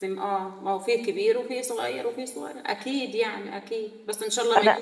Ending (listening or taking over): listening